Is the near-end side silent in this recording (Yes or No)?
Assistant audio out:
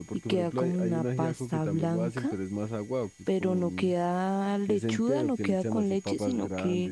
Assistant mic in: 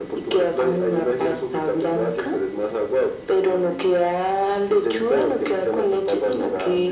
Yes